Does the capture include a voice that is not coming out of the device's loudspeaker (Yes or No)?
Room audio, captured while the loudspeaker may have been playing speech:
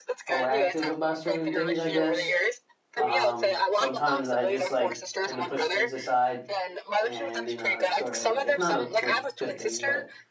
Yes